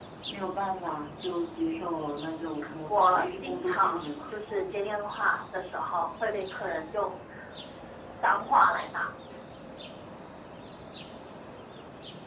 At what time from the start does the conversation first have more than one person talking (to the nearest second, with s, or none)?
3 s